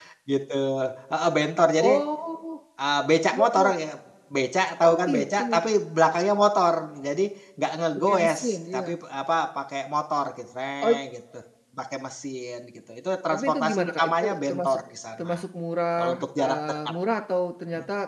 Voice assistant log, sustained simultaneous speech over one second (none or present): present